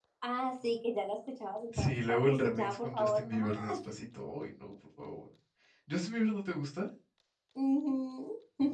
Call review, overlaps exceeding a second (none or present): present